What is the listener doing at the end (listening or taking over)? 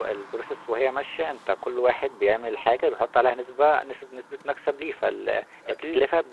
listening